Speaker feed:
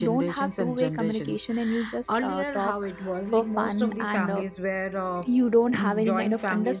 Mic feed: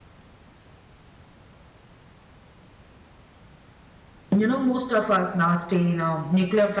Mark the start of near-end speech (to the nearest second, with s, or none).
4 s